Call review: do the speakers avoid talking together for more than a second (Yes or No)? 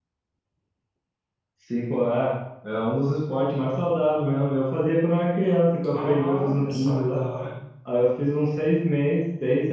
No